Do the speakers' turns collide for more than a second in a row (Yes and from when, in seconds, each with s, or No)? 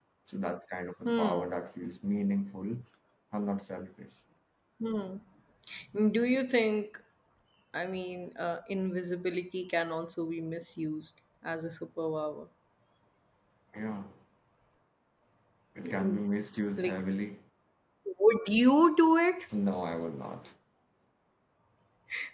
No